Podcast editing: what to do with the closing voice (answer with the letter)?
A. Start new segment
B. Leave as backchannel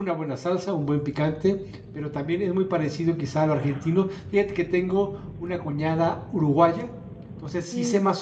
B